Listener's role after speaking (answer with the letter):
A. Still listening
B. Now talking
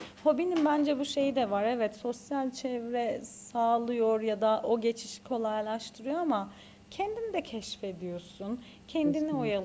A